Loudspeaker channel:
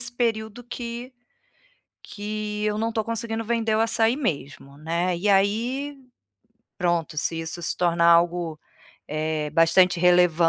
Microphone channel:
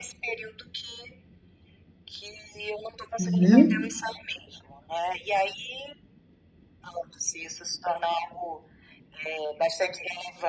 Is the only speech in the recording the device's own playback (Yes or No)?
No